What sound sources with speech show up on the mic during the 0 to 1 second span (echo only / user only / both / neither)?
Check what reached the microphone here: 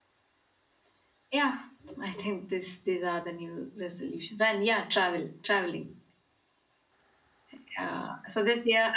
neither